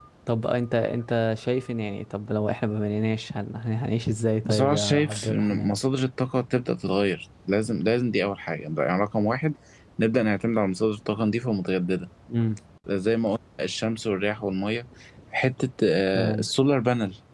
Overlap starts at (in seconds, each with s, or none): 4.5 s